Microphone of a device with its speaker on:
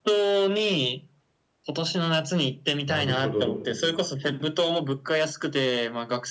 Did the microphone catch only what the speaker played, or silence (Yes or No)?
No